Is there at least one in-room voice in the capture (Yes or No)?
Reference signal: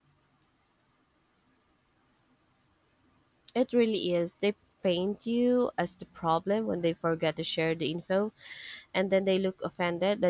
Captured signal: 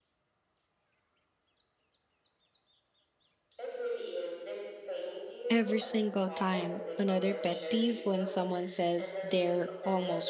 Yes